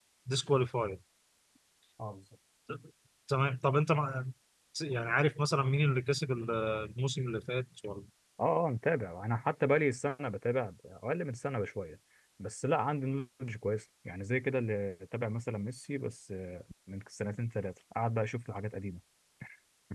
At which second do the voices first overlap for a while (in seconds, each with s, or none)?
none